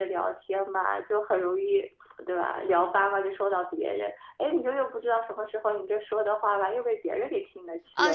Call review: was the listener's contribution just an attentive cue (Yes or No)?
No